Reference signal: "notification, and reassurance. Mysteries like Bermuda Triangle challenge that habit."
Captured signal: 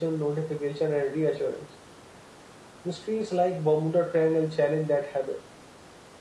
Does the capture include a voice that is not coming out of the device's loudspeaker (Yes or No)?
No